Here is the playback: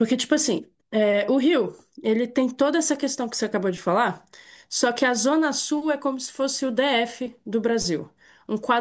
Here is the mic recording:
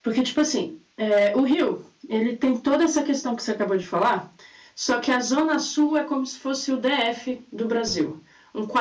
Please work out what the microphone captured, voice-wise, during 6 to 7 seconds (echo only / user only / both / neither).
echo only